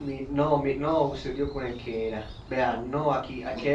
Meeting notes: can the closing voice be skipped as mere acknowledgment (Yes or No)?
Yes